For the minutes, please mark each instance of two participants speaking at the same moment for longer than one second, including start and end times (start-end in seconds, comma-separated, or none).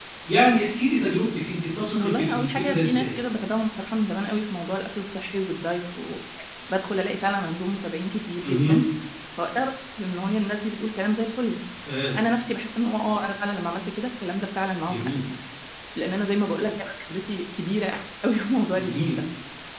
1.9-3.1